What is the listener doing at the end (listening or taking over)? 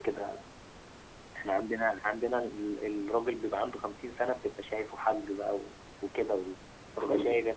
taking over